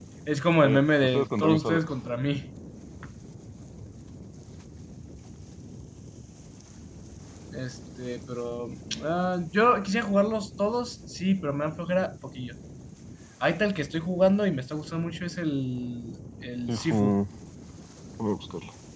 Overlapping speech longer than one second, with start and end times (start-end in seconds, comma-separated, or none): 0.6-1.9